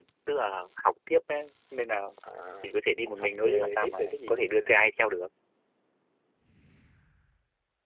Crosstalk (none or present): present